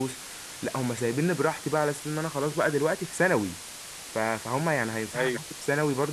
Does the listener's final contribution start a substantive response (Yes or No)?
No